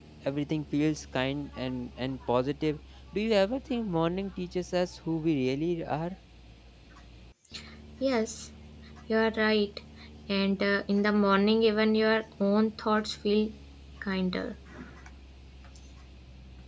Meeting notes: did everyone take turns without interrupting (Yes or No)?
Yes